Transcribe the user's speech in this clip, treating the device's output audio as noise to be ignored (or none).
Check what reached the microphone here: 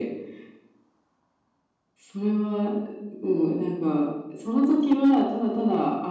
none